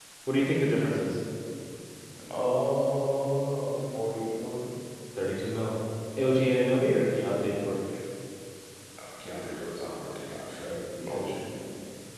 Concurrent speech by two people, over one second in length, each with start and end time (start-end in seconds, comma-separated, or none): none